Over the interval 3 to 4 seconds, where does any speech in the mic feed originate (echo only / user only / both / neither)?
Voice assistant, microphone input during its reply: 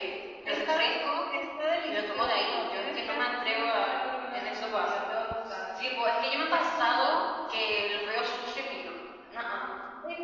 echo only